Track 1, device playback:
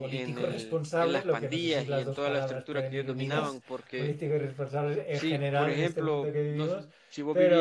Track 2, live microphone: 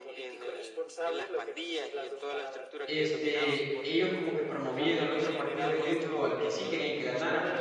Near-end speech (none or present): present